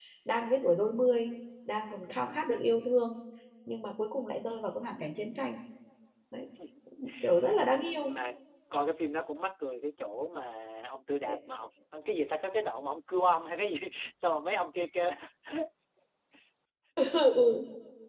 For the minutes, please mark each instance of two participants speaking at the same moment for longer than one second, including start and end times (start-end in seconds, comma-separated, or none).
none